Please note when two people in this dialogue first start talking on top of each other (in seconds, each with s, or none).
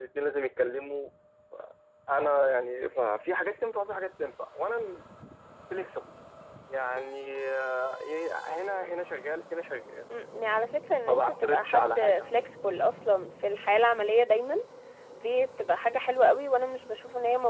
11.1 s